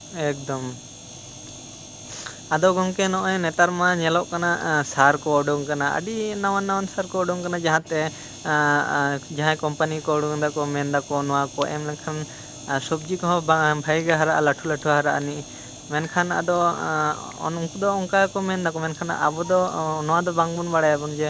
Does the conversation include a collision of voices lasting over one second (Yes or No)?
No